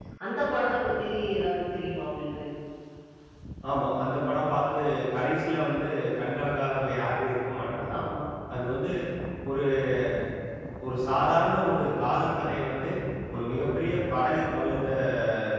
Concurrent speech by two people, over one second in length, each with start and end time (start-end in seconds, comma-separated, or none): none